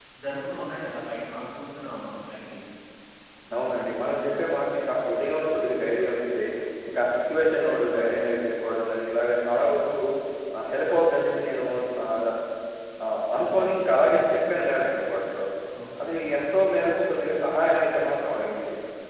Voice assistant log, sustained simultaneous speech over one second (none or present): none